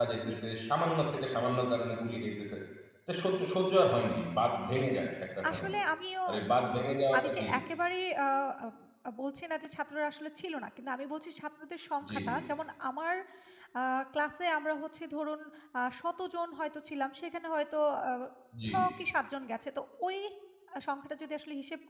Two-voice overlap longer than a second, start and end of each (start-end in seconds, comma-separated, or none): none